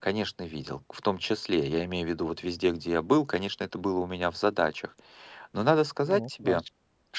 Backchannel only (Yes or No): Yes